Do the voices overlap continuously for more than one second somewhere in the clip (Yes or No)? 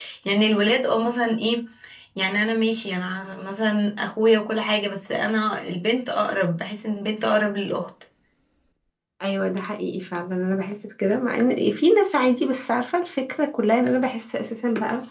No